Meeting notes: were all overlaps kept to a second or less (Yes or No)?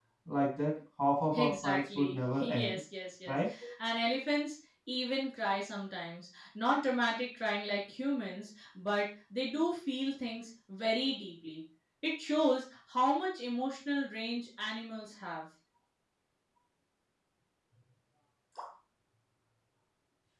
No